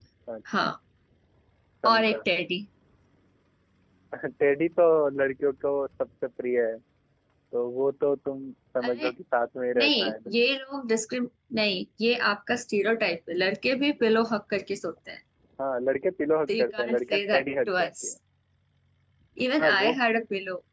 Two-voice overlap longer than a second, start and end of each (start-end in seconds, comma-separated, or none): 16.5-17.9